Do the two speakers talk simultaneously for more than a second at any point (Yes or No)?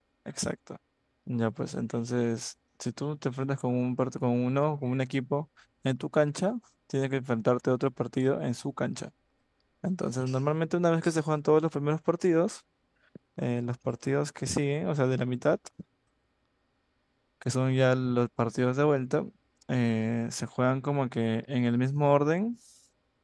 No